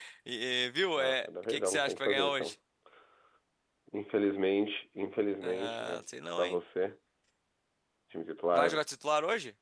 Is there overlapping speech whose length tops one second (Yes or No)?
Yes